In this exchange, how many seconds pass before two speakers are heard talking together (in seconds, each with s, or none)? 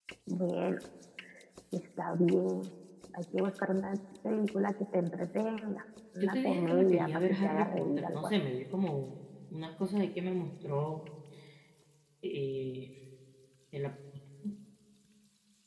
6.2 s